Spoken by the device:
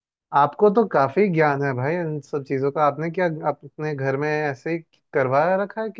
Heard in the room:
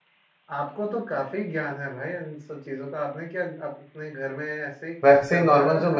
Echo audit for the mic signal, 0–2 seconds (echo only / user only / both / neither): echo only